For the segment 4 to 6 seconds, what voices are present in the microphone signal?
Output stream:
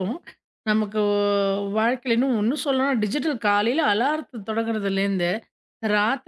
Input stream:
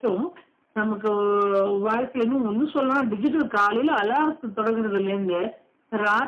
echo only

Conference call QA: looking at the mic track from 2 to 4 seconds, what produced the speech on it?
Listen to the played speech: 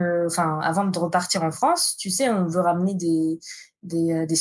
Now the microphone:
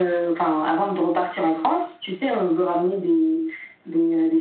echo only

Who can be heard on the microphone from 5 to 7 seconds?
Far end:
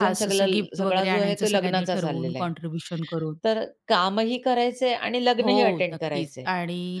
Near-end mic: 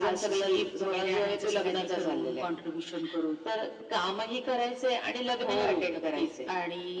echo only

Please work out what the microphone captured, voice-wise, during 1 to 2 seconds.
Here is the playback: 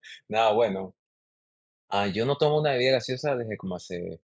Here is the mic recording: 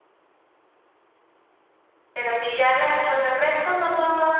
neither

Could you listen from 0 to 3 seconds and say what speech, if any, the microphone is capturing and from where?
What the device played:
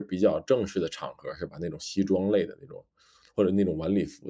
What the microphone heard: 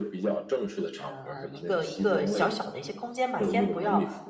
both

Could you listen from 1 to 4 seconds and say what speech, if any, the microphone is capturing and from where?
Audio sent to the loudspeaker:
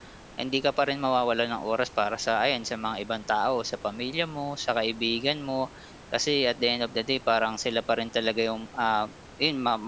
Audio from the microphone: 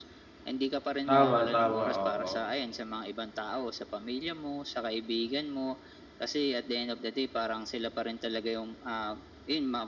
both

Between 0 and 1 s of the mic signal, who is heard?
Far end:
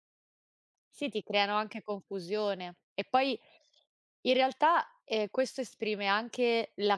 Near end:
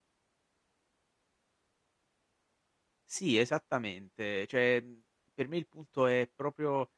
neither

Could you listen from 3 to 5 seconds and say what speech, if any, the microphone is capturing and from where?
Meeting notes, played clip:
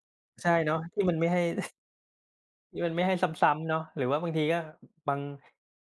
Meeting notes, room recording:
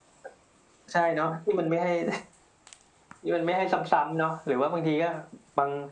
echo only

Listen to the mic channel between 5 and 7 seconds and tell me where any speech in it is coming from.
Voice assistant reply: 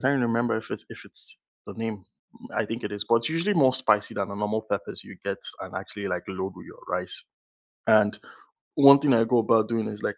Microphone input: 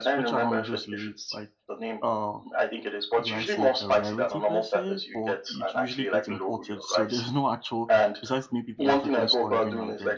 both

